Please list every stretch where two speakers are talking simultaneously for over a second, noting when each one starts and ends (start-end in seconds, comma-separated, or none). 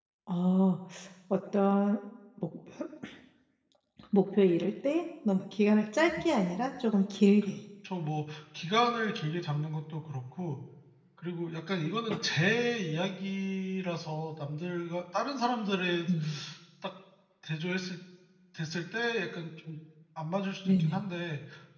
none